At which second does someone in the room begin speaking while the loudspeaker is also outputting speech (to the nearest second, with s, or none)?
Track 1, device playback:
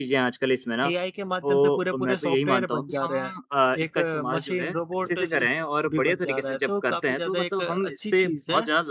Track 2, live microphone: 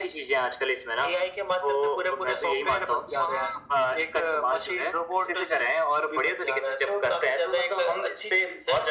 none